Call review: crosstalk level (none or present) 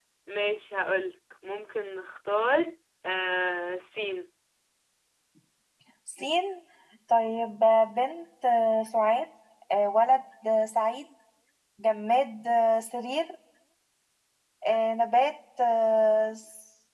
none